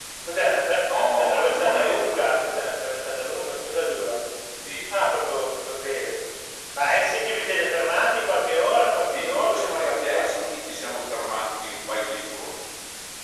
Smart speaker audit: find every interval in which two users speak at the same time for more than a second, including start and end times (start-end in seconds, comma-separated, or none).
0.9-2.2, 9.1-10.5